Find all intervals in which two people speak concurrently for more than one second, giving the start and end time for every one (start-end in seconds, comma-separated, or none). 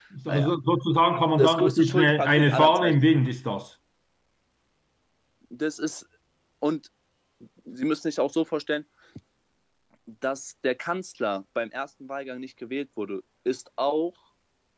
1.4-3.0